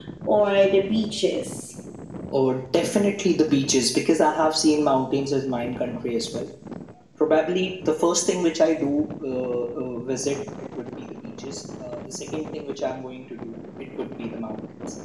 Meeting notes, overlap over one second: none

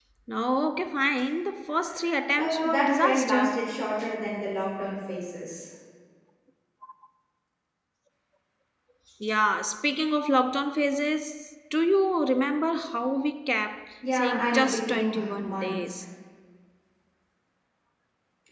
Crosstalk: present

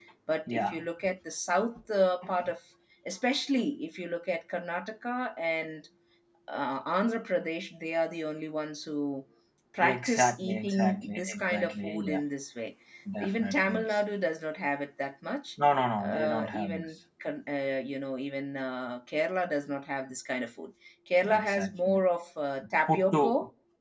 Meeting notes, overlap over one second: present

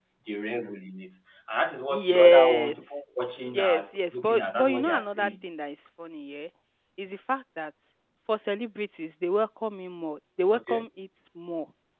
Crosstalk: present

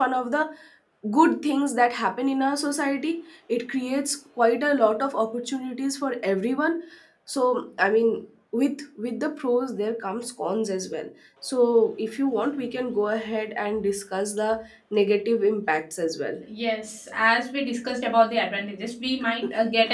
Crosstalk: none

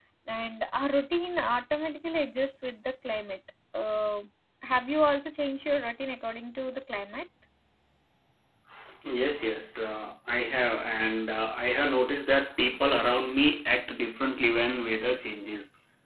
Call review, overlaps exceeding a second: none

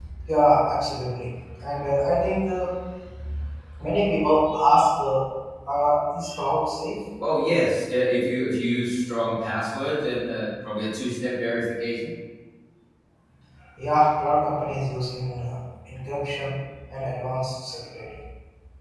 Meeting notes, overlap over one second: none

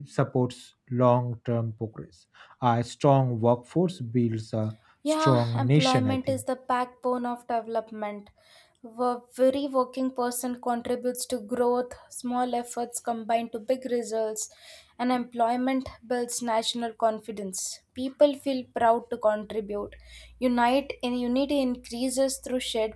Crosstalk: present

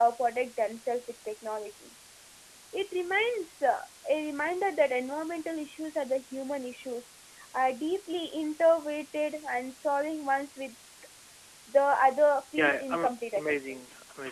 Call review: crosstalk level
present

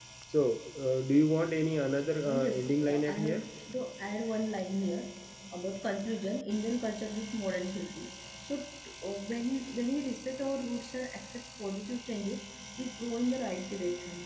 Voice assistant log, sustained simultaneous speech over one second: present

